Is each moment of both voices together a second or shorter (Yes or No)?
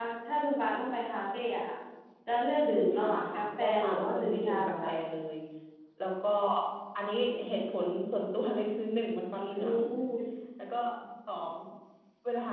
No